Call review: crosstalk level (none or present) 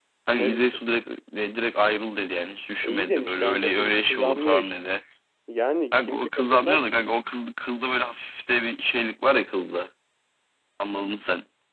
present